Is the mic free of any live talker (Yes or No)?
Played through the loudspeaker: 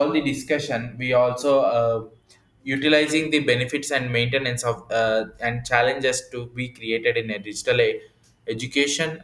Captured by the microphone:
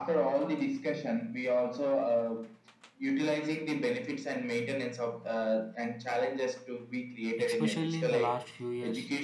No